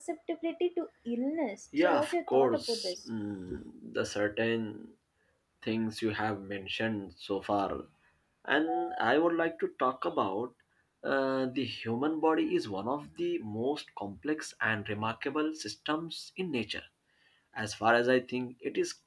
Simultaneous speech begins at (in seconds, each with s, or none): 1.7 s